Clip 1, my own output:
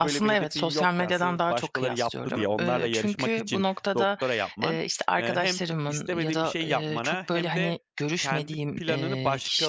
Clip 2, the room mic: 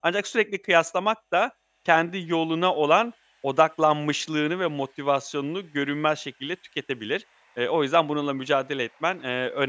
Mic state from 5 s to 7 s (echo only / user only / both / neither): user only